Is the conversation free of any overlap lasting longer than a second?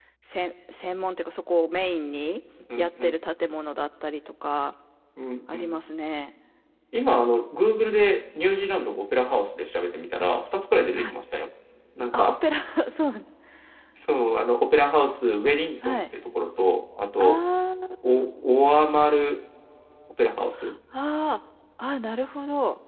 Yes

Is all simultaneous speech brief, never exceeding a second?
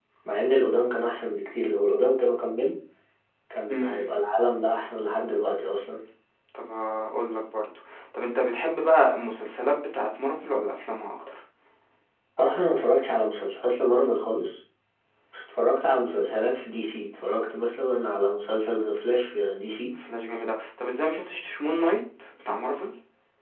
Yes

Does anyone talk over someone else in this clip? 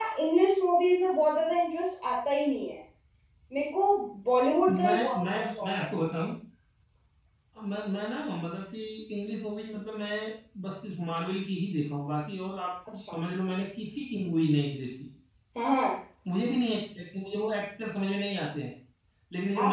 Yes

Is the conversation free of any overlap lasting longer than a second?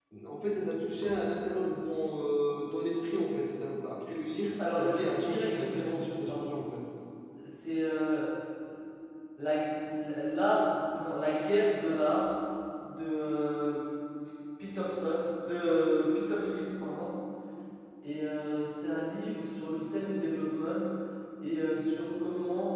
No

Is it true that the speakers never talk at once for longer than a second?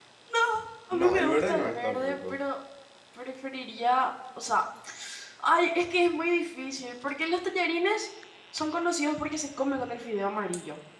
No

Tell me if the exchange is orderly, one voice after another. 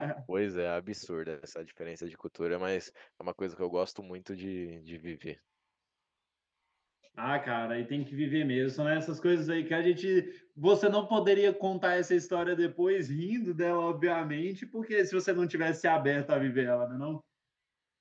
Yes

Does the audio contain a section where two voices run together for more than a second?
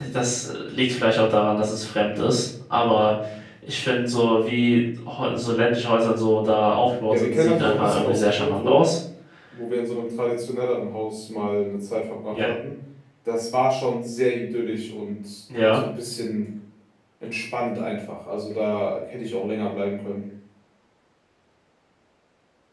Yes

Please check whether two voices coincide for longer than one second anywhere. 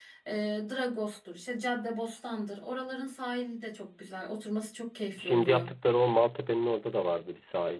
No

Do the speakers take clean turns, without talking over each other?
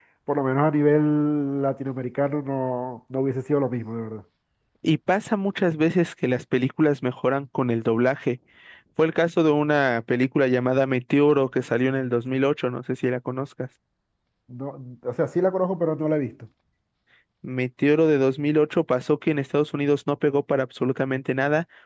Yes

